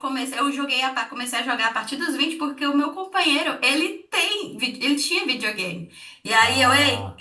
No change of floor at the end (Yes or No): Yes